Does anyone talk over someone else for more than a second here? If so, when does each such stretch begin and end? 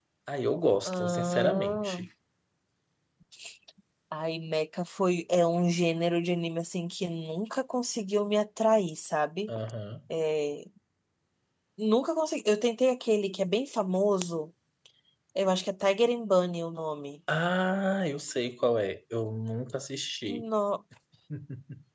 0.8-2.1

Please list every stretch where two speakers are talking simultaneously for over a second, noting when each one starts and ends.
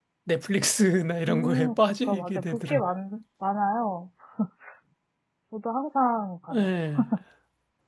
1.3-2.9

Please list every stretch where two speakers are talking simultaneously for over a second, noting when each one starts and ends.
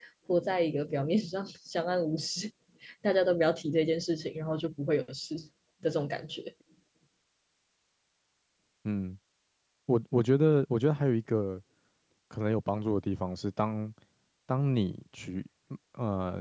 none

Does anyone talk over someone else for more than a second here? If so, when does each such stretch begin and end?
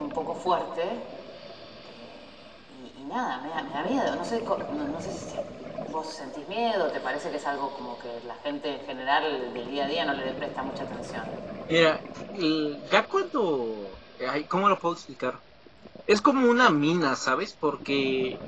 none

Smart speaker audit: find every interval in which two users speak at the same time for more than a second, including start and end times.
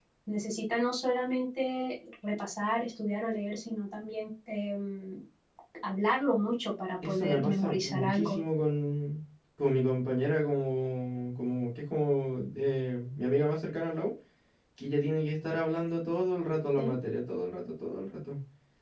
7.0-8.4

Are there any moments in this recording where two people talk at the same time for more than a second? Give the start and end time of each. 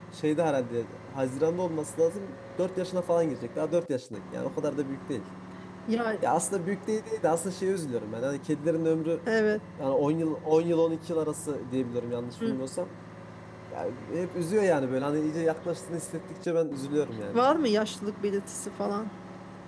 none

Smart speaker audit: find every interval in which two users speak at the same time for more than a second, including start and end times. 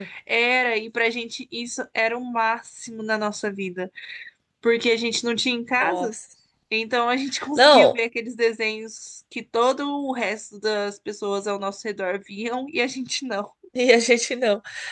none

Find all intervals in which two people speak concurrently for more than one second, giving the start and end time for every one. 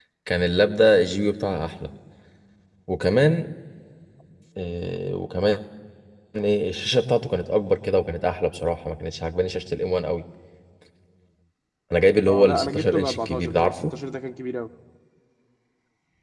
12.3-13.7

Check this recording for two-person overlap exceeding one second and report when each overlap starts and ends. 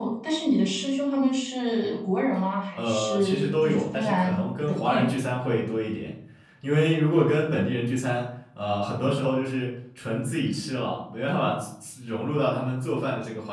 2.8-5.2

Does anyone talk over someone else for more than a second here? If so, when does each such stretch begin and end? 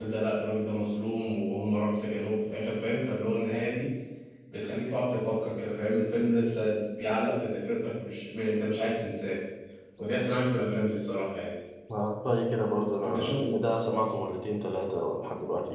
none

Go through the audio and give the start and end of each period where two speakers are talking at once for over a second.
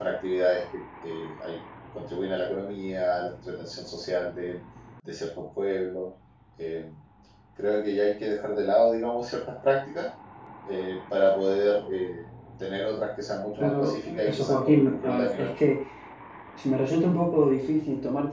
13.6-15.5

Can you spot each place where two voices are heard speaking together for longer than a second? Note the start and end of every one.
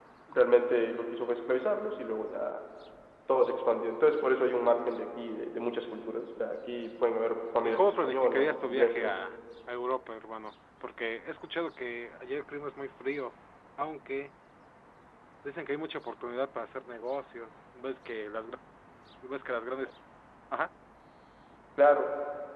7.6-9.1

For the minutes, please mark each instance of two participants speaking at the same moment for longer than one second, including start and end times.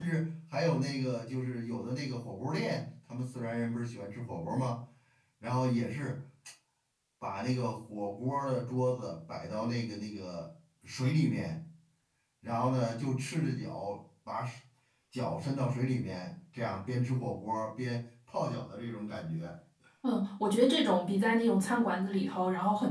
none

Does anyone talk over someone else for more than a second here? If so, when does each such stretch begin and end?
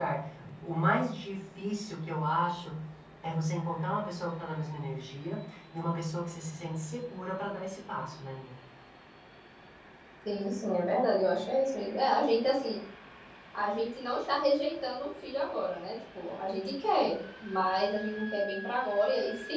none

